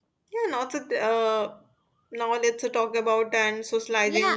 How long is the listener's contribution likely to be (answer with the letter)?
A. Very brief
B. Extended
B